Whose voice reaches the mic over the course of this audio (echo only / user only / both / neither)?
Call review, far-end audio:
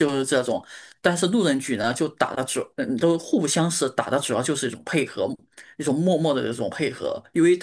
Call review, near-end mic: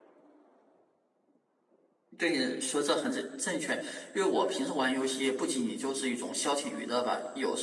user only